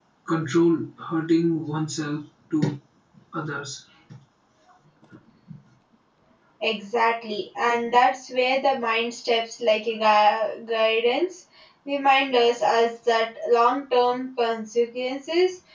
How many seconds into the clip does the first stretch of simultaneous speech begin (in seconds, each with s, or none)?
none